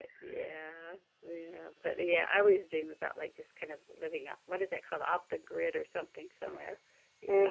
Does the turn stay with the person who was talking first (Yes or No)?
No